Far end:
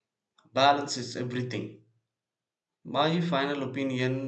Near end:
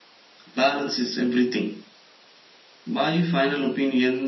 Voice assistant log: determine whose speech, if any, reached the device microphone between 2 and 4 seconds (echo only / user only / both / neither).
echo only